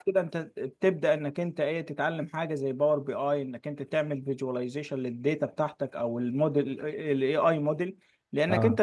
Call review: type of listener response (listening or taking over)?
listening